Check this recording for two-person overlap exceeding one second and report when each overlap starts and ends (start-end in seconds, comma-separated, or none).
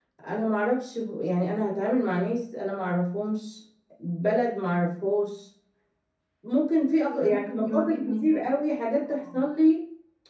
7.1-8.5